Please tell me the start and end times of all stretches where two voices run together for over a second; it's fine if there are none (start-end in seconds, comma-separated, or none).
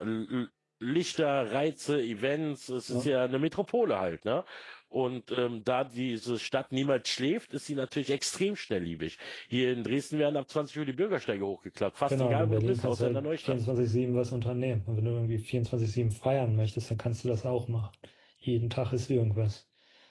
12.1-13.6